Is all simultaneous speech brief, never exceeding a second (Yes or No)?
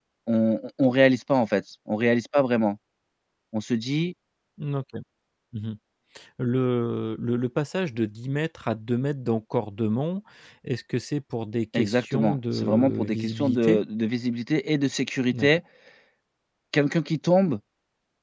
No